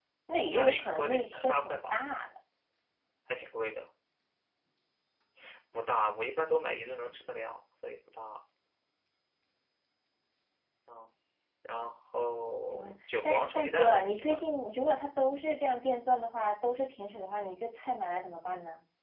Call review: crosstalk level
present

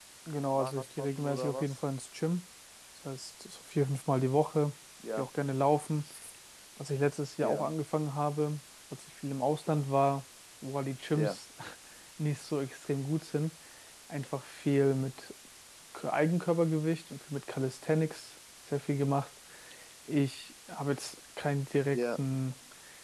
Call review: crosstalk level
present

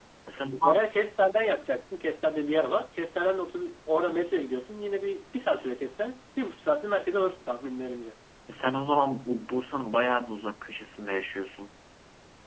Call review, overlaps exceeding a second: none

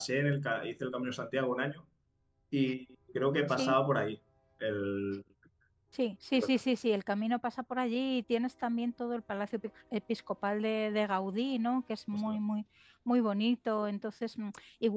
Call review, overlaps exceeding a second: none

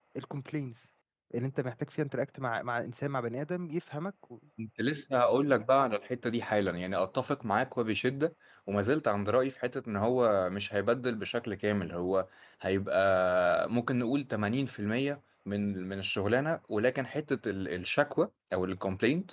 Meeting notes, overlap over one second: none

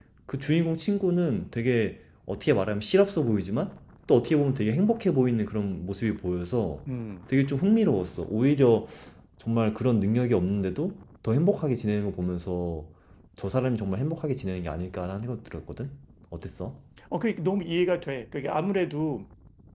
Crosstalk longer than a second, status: none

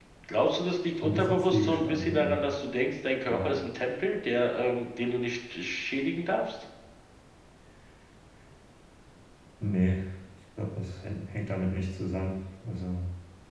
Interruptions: present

